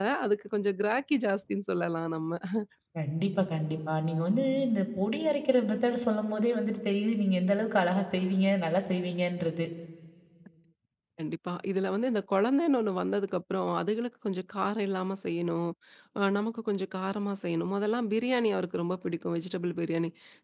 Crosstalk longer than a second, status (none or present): none